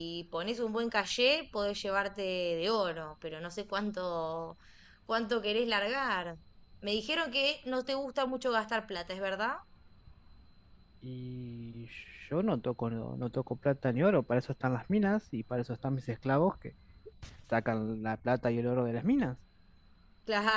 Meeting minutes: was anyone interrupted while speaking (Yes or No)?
No